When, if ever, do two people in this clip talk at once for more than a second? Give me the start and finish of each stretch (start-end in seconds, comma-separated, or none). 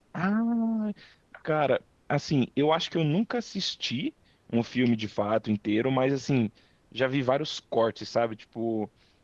none